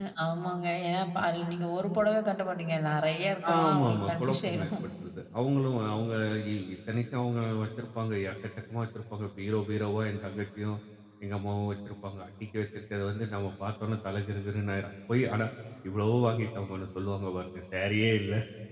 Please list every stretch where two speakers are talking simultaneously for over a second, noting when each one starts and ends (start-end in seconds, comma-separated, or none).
3.5-4.7